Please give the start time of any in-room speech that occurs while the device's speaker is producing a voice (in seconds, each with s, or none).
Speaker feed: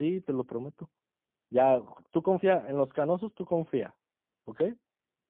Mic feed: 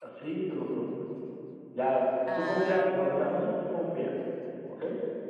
2.2 s